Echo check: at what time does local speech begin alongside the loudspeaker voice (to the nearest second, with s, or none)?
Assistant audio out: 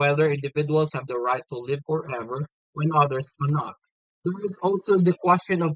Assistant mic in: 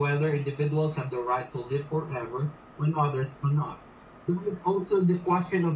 none